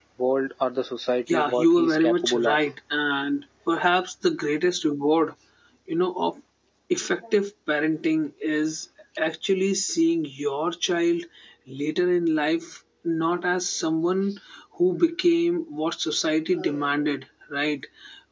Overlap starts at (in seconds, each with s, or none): 1.3 s